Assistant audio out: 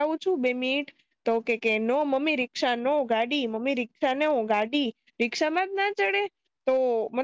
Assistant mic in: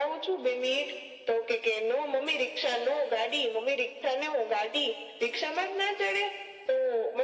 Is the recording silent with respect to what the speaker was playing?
No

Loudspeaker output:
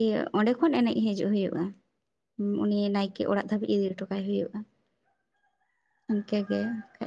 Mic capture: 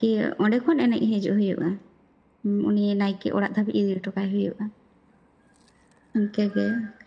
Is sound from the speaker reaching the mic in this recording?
Yes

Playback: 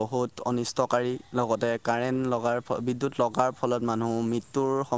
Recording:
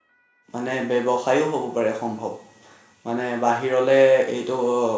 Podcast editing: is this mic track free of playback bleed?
Yes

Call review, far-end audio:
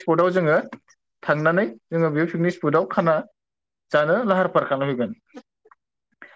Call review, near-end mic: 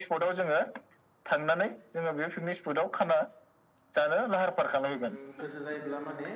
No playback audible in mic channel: No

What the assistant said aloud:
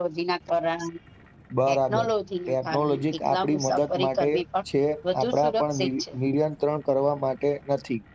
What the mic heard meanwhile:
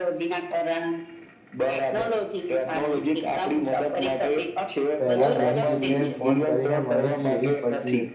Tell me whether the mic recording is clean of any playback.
No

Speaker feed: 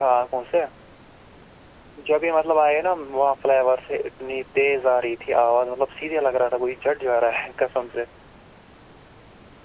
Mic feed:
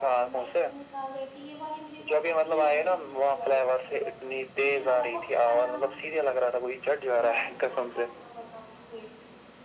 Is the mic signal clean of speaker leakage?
No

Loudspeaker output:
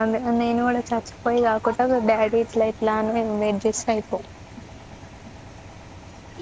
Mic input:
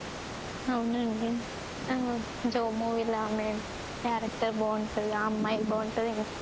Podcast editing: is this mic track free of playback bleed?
Yes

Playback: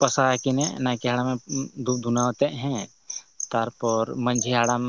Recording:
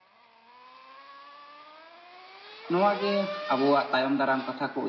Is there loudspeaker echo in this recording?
No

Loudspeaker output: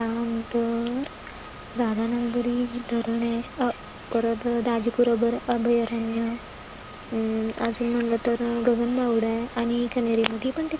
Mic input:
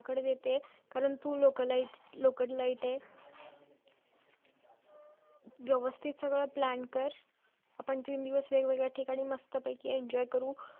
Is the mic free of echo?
Yes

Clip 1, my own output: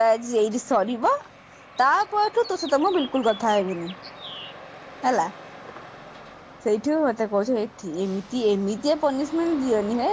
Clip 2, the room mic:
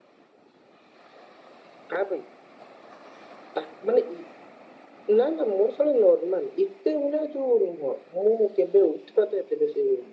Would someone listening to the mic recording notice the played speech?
No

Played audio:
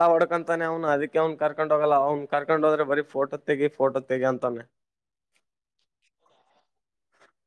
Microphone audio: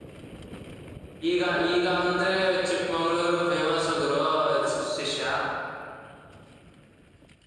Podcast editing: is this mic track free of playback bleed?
Yes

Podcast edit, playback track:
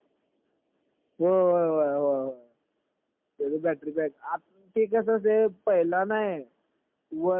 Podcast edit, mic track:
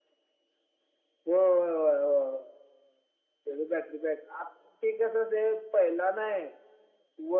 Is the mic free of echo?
No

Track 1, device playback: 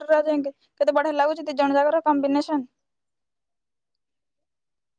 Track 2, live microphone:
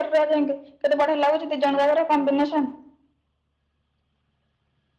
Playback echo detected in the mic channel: Yes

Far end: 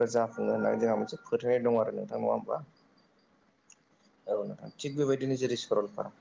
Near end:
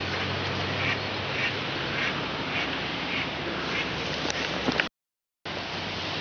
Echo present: No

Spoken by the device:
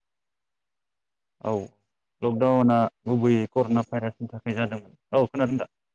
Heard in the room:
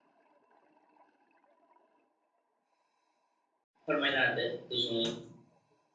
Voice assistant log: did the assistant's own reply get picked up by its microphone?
No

